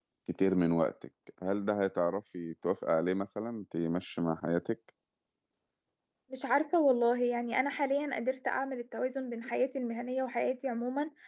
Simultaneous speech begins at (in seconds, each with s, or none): none